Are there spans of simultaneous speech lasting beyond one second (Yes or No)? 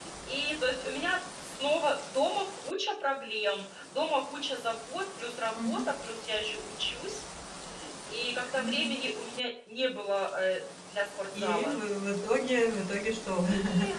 No